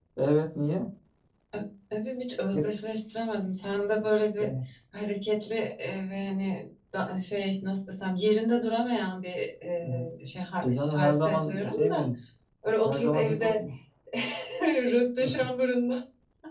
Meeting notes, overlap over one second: present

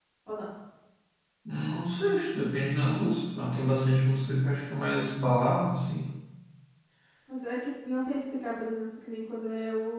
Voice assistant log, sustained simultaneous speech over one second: none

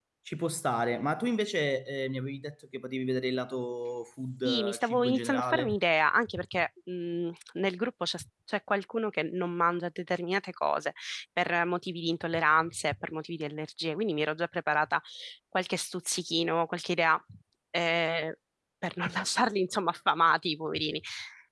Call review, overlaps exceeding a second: present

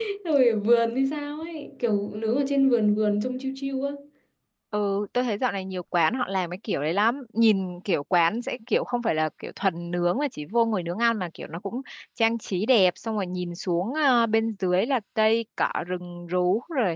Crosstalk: none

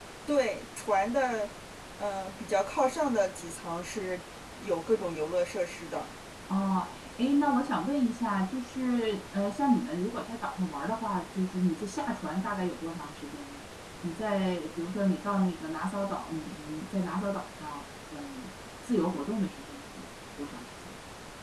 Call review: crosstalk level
none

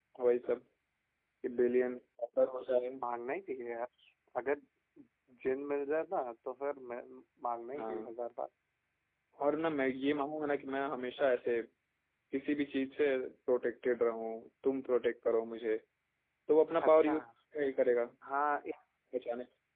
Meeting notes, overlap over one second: none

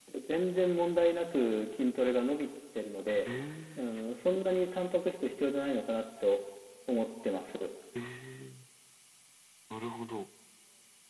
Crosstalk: none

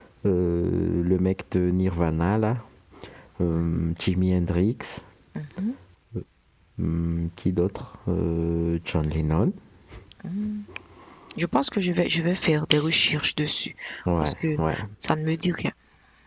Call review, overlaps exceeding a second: none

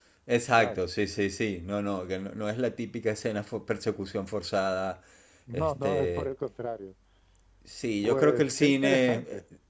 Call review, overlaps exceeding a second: present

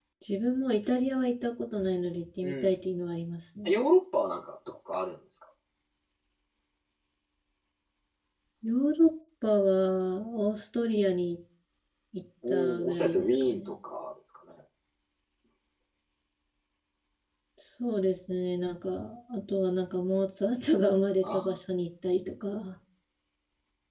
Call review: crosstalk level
present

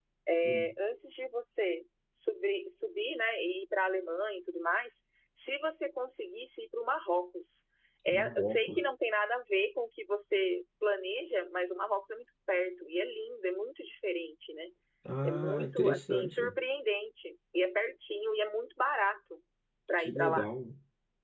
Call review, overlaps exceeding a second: present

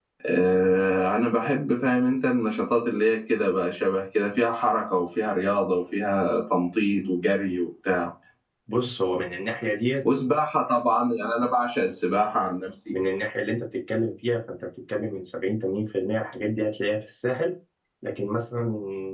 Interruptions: none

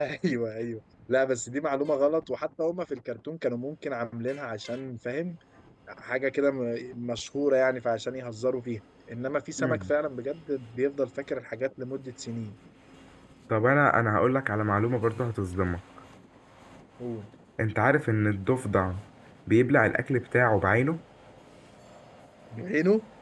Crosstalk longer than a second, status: none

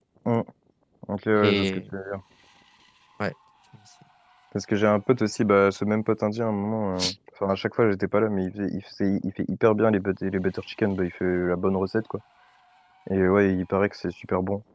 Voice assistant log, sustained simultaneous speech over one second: none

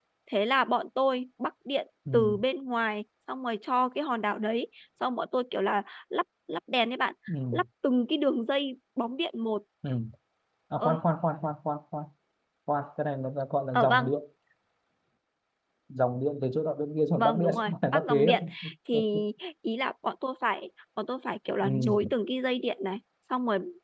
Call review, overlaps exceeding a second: present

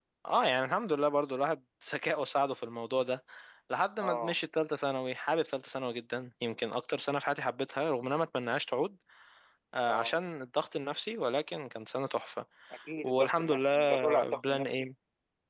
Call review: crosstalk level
present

